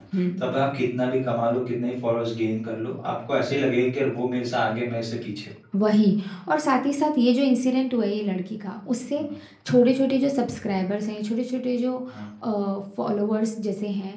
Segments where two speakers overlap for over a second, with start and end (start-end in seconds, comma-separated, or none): none